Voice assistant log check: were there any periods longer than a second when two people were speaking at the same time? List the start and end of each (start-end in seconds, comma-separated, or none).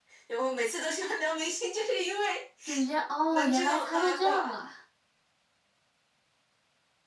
3.3-4.6